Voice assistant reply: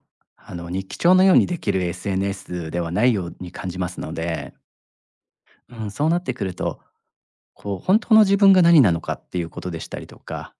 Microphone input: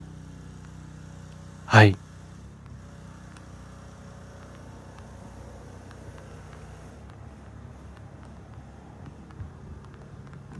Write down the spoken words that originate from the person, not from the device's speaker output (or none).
はい。